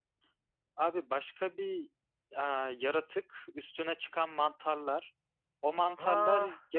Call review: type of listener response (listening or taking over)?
listening